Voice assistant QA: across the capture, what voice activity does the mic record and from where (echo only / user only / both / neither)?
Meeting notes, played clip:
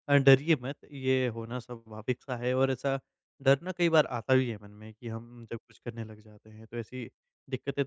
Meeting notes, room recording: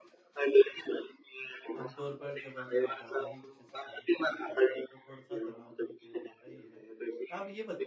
both